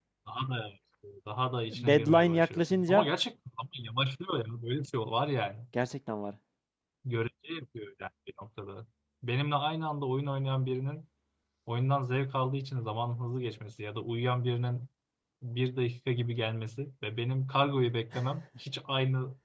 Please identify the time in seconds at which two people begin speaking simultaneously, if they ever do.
1.7 s

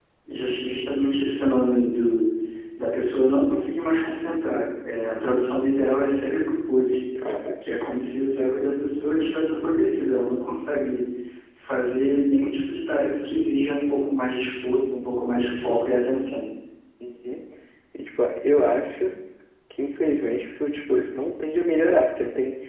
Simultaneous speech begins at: none

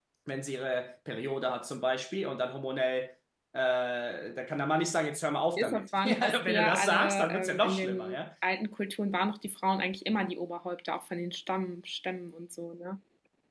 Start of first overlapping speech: 5.6 s

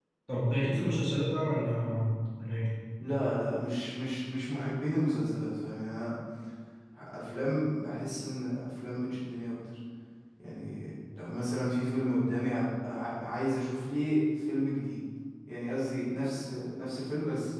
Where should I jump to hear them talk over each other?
none

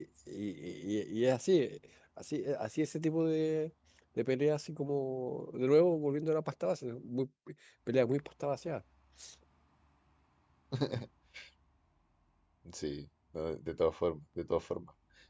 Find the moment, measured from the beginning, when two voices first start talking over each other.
none

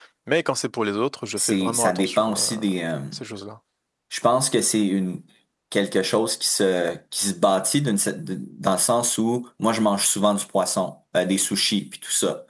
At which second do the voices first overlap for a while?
1.4 s

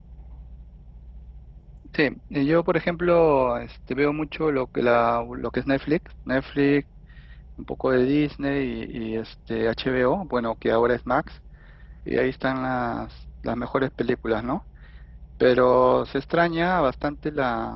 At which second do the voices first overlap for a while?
none

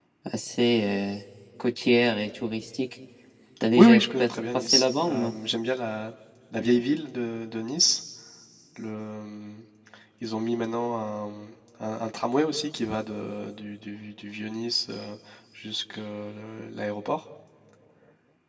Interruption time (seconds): 3.8 s

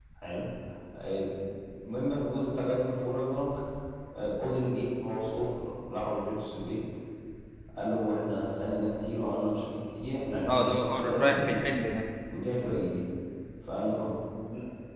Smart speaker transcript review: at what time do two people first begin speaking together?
10.5 s

